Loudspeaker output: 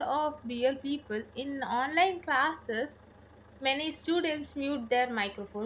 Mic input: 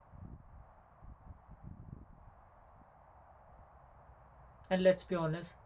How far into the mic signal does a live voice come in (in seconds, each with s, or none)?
4.7 s